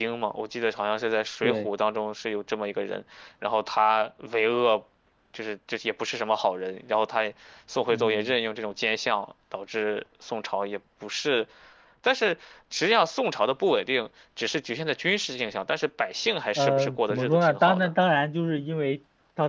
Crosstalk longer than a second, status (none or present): present